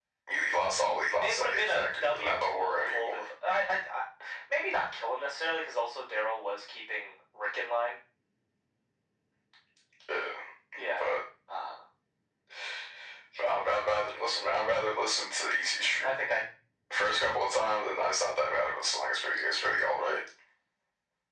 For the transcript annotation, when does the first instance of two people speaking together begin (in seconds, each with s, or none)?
1.2 s